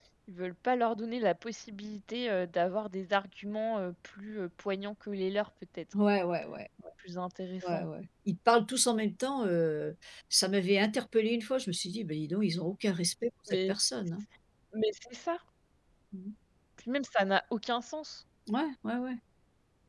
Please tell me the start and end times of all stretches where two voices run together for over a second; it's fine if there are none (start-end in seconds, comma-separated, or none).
none